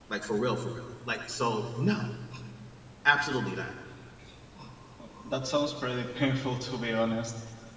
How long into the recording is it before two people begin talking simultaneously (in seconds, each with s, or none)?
none